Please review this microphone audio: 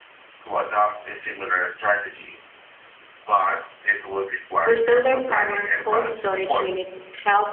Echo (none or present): present